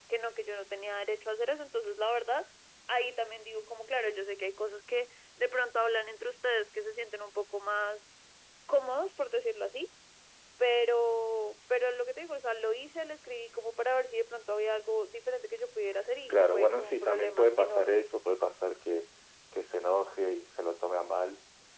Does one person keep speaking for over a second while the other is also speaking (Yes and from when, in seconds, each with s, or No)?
Yes, from 16.3 s